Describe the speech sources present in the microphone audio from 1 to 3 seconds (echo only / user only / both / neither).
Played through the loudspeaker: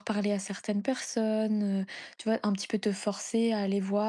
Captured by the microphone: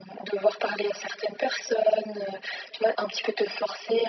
echo only